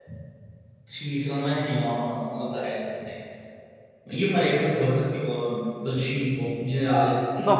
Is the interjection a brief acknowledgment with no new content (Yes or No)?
No